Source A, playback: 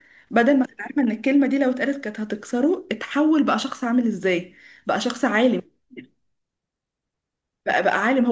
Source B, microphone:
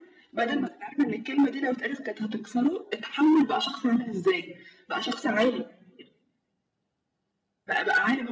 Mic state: echo only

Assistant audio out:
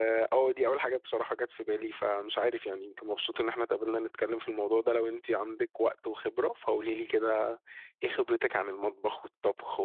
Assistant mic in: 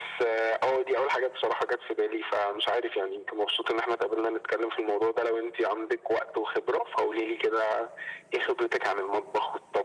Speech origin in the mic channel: echo only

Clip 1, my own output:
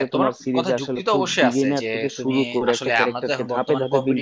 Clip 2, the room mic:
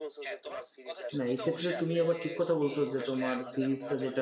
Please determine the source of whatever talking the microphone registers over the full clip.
both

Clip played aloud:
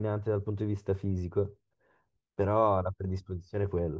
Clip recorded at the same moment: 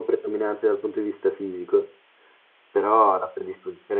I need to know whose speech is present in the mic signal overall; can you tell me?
echo only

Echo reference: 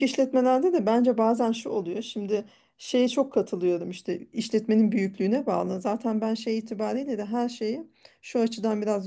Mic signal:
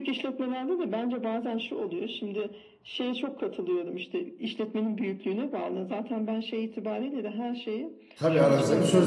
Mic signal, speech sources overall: both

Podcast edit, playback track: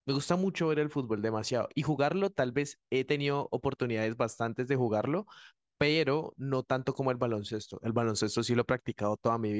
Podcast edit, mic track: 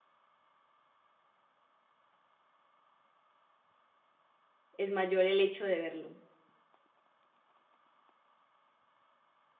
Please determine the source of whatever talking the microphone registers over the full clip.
user only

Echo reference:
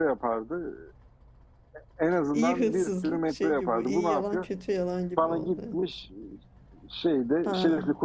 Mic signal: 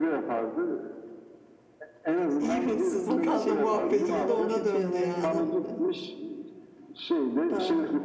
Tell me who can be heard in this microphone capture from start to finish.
both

